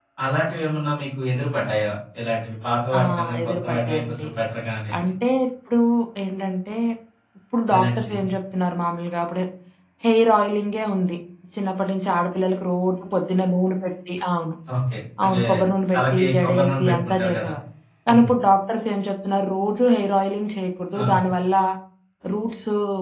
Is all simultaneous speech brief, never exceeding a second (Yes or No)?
No